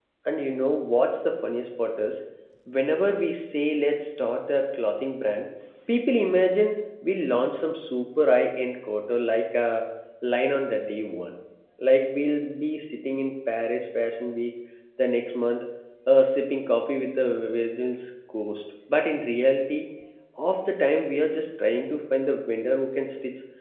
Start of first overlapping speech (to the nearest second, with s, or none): none